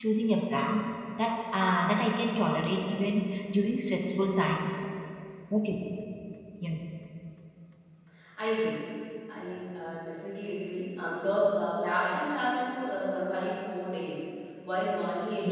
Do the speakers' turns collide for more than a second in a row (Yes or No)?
No